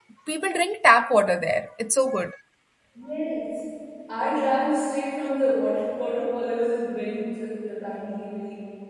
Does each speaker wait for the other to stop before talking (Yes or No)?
Yes